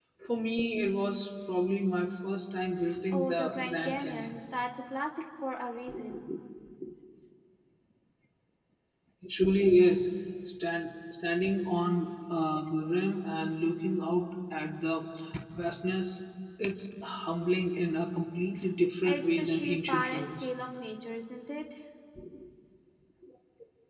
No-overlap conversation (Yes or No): No